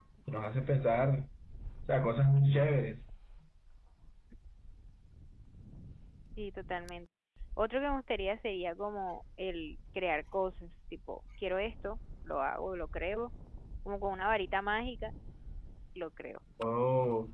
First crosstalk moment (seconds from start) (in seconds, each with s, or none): none